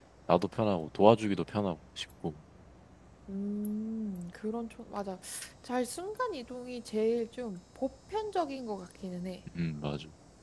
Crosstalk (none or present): none